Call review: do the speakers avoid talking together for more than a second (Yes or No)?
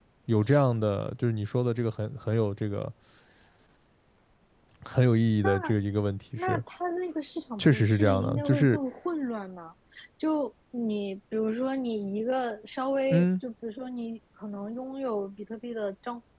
No